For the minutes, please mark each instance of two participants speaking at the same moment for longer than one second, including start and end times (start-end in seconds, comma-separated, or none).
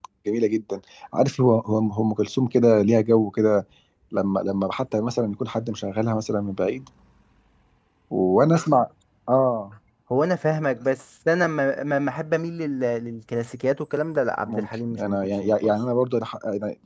14.4-15.7